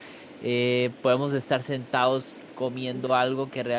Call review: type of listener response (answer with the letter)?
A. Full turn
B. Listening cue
B